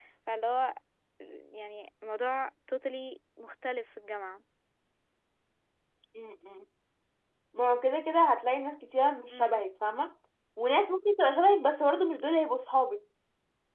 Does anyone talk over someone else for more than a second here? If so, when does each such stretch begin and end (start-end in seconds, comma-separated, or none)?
none